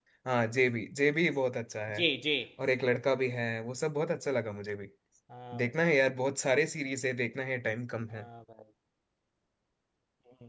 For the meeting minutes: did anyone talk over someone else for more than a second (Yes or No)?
No